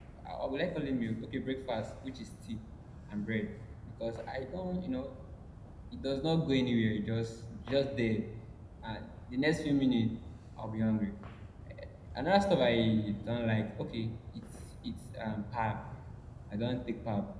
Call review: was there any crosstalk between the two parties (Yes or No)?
No